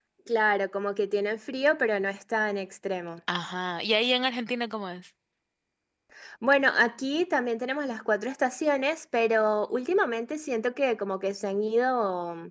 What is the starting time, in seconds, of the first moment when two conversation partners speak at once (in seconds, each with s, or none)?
none